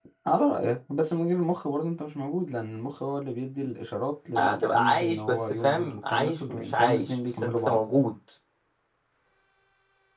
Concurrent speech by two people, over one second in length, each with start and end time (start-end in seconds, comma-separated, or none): 4.4-7.8